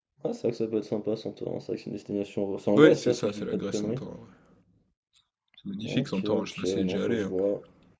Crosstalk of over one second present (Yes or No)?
Yes